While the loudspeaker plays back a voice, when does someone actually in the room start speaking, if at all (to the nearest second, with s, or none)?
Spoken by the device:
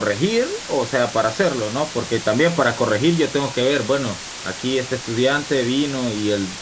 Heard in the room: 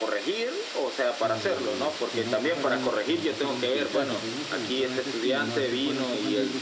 1 s